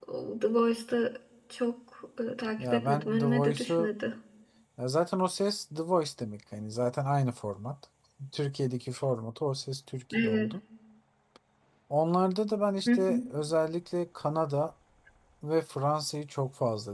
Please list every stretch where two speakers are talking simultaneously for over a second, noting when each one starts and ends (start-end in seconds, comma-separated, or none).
2.6-3.9